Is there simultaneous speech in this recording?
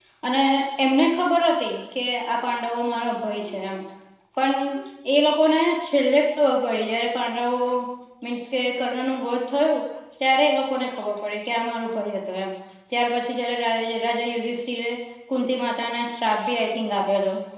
No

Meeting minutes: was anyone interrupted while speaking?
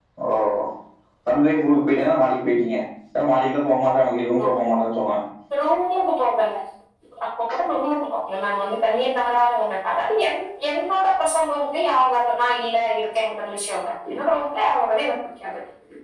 No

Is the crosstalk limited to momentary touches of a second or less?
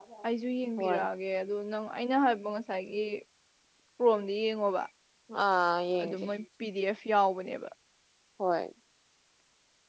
Yes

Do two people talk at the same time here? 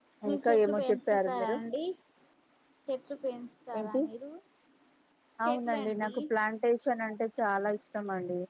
Yes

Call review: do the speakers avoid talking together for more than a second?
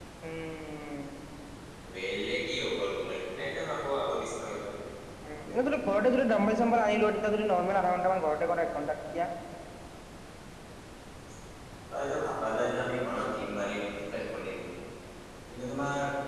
Yes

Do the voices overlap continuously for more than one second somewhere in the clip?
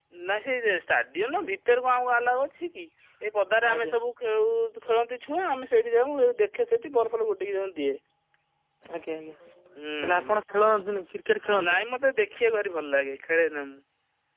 No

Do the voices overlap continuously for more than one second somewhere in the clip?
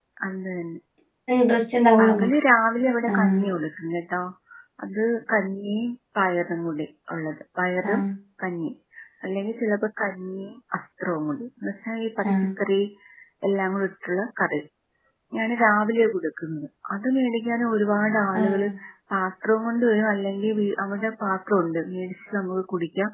No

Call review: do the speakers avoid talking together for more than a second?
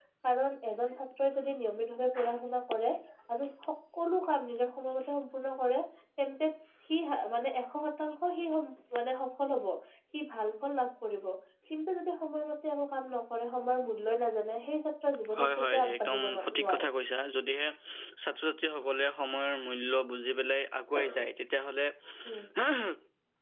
No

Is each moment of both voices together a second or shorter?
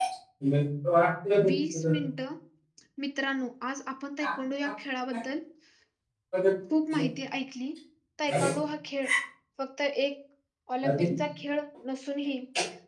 Yes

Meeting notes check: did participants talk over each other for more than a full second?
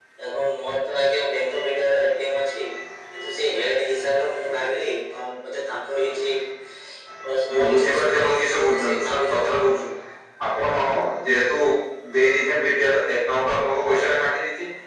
Yes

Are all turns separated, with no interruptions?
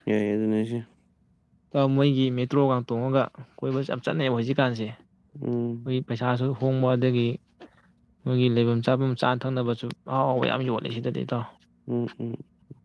Yes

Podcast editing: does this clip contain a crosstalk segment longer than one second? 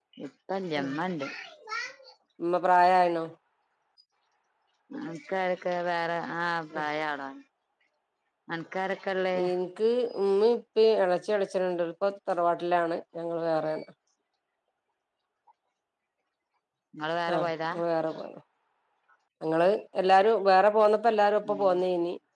No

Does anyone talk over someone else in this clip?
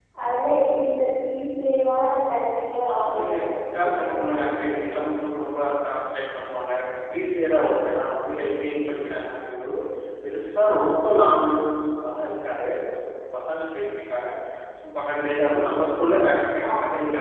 Yes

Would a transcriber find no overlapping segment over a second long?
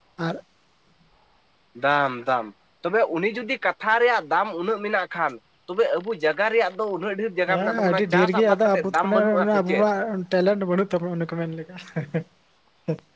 No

